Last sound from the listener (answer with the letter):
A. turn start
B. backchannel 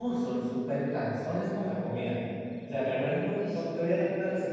B